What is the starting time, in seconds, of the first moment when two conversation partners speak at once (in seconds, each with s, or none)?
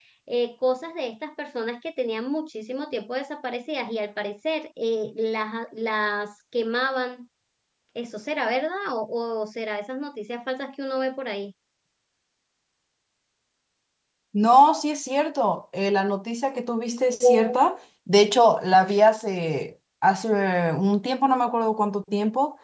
none